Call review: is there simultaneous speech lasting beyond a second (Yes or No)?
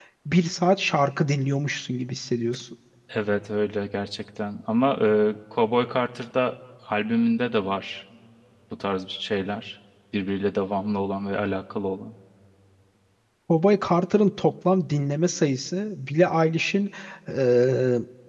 No